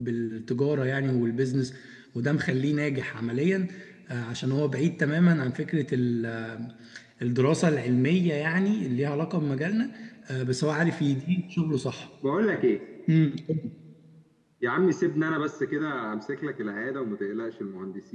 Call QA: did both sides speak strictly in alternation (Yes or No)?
Yes